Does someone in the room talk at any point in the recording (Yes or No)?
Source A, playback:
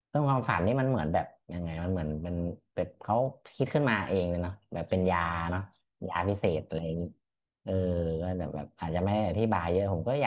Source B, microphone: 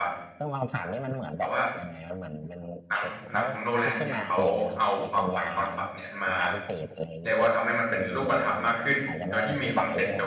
Yes